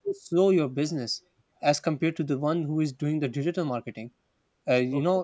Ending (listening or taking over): listening